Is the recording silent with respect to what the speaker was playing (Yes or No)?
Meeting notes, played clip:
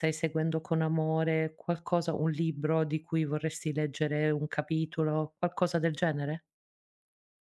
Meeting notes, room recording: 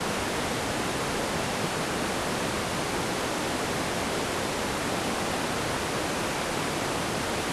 Yes